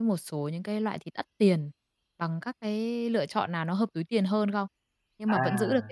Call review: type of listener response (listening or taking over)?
listening